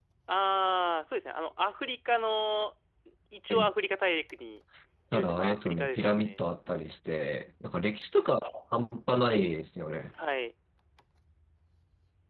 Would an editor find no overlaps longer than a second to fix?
No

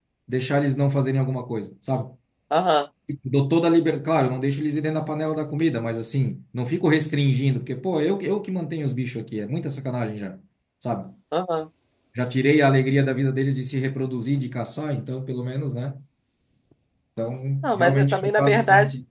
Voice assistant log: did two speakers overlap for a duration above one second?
Yes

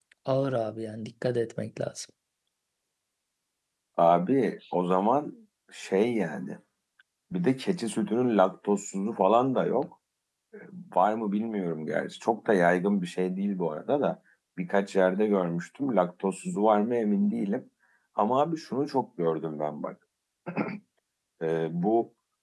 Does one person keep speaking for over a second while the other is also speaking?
No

